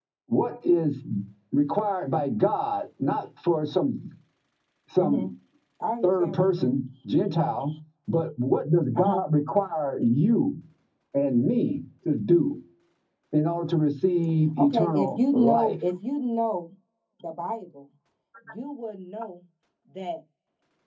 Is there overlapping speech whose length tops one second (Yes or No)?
Yes